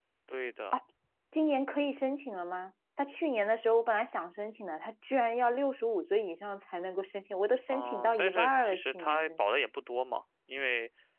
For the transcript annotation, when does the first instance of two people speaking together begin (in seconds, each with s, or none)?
7.7 s